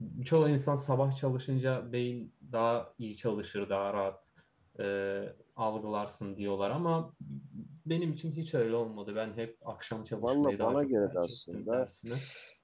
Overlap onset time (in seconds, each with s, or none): 10.1 s